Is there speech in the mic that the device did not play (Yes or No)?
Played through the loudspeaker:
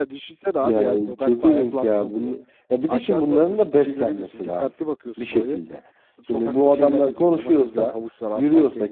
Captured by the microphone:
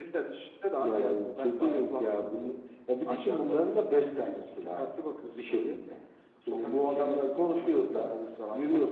No